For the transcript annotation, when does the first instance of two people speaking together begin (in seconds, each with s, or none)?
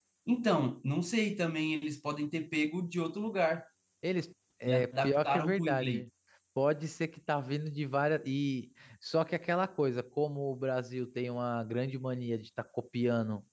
4.7 s